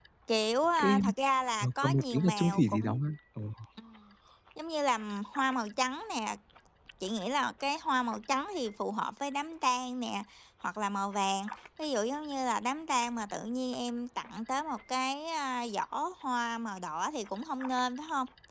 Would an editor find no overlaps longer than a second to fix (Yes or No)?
No